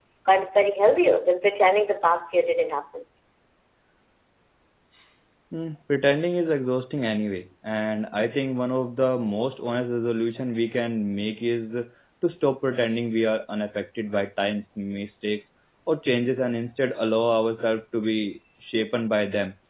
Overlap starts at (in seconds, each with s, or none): none